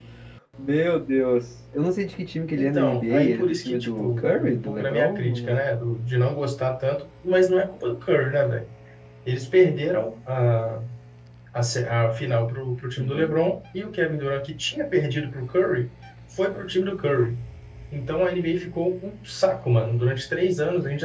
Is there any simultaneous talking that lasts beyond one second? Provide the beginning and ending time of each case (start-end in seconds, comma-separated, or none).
2.6-5.6